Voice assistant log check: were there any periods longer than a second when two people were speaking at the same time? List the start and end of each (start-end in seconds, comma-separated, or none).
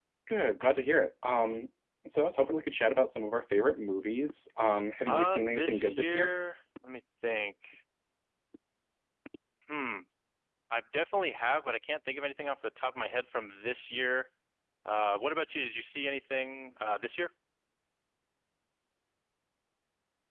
5.1-6.3